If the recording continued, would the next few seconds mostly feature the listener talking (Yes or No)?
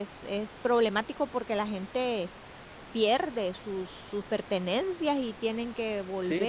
Yes